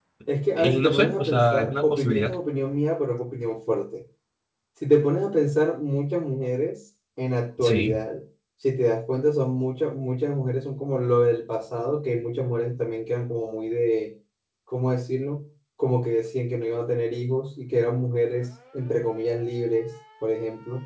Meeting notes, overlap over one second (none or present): present